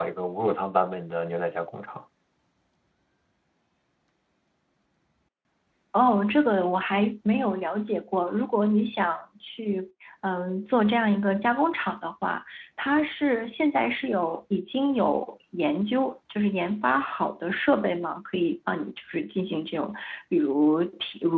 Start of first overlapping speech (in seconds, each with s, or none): none